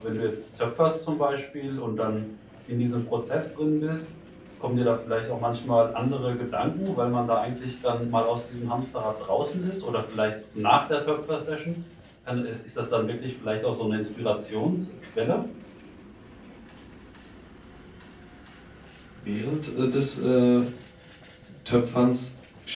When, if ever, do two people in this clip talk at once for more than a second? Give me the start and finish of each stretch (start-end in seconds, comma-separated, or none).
none